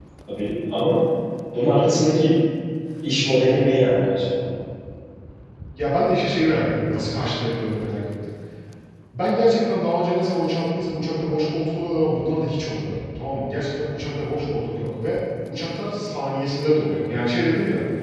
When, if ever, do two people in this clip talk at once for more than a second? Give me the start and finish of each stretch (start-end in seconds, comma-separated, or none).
none